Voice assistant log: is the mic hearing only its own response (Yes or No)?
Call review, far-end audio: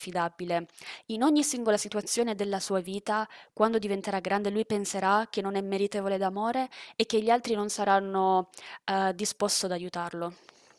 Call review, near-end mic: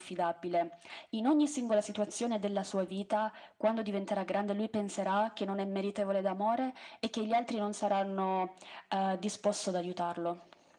Yes